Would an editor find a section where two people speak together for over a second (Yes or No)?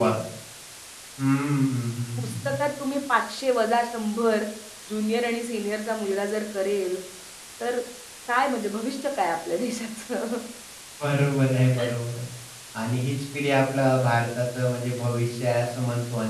No